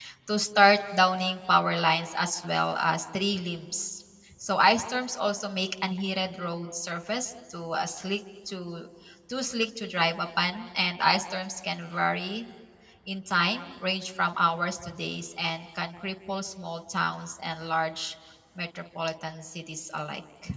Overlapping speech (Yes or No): No